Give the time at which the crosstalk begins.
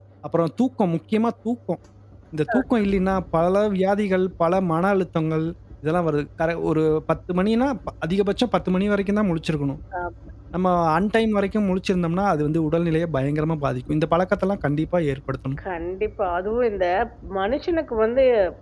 none

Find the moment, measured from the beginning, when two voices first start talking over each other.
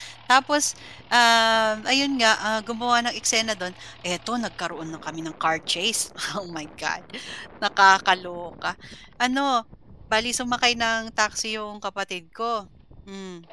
none

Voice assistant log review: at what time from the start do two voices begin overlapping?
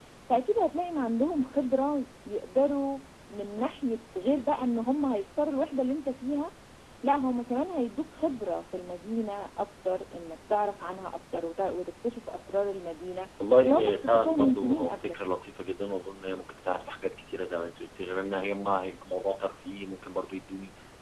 13.6 s

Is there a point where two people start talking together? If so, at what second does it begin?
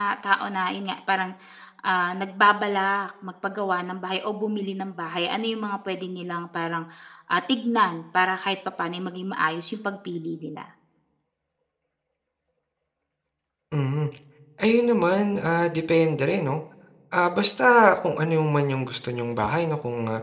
none

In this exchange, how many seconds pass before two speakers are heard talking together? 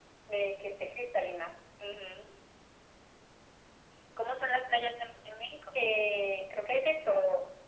none

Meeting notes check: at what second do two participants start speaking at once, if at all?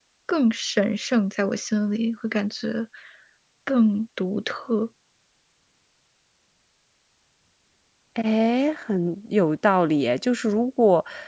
none

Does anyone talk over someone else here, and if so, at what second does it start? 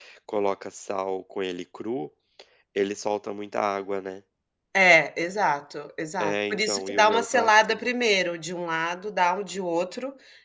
6.2 s

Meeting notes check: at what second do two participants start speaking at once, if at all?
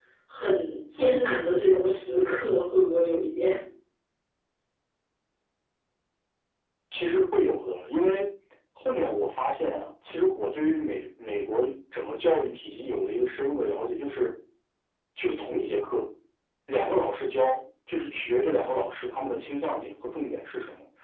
none

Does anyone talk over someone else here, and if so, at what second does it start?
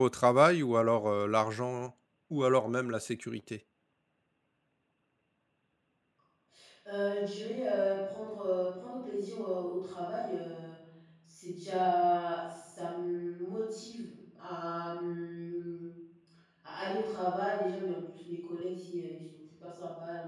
none

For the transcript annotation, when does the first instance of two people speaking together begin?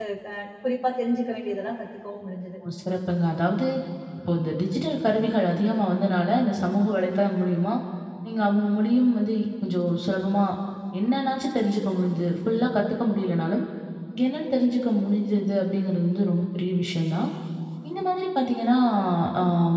none

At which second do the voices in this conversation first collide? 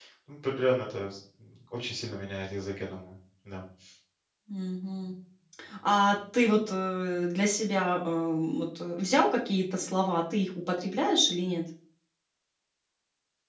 none

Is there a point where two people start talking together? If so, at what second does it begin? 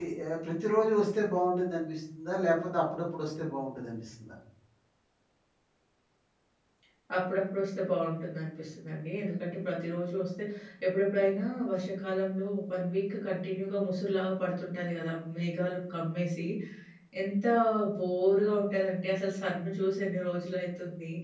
none

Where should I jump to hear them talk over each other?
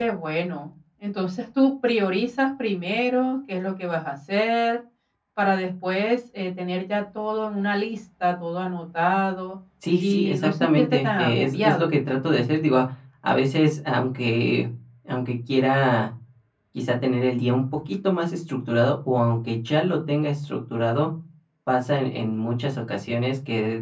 10.0 s

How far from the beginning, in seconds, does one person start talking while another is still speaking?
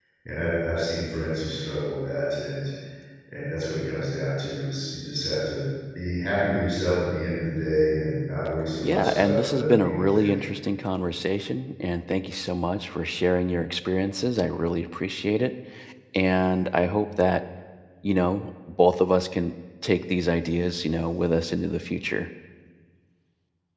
8.8 s

